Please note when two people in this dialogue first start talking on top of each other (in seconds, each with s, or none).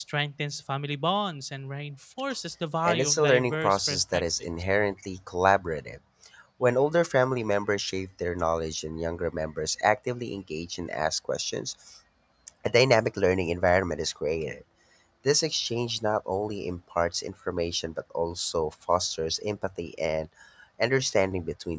2.8 s